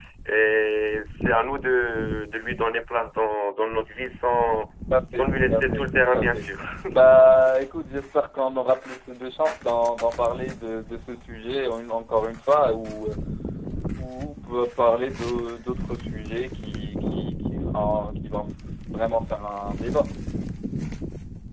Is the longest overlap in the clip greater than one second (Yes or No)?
Yes